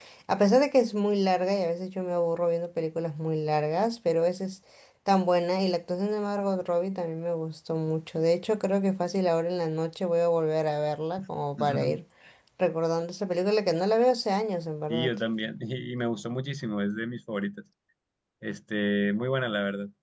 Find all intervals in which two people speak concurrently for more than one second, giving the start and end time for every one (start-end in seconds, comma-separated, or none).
none